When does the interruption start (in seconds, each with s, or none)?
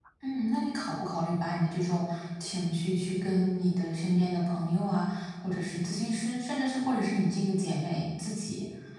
none